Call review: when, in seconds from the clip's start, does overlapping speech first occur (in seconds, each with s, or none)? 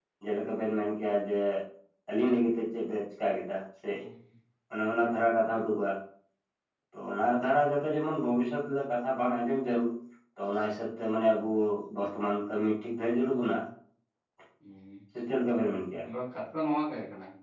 none